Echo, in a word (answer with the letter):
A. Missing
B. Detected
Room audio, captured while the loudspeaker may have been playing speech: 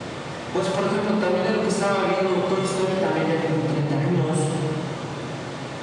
B